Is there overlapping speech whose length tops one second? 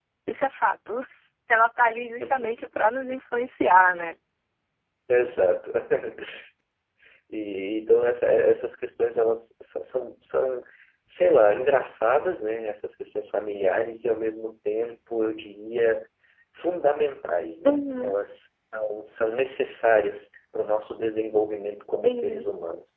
No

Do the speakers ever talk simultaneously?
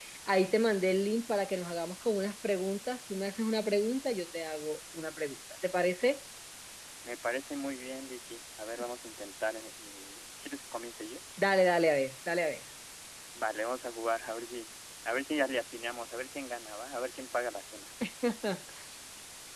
No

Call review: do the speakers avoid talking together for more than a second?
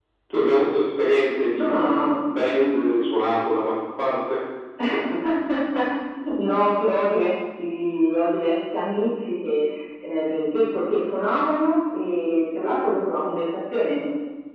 Yes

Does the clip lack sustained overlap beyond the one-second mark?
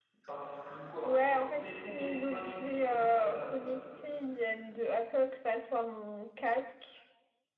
No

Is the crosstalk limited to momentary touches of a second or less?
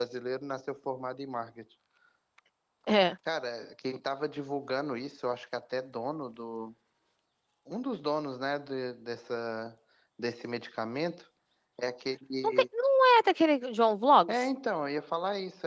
Yes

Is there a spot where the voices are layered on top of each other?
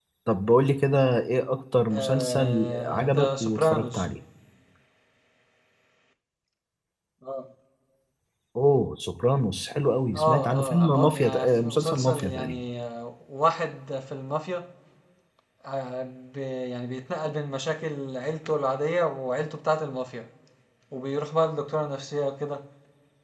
Yes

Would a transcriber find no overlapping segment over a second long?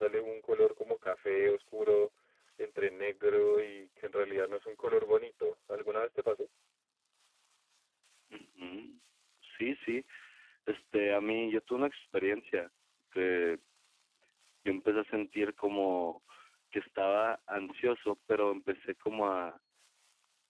Yes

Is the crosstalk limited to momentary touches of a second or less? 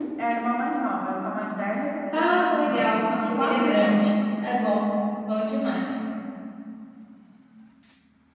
No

